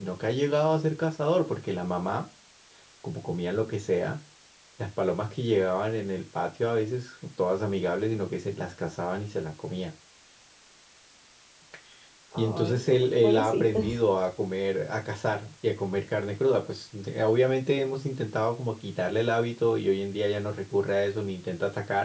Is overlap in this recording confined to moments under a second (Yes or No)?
No